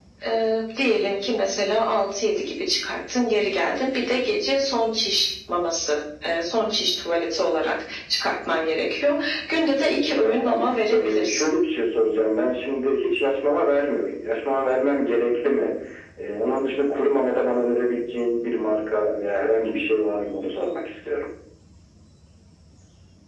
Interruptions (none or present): present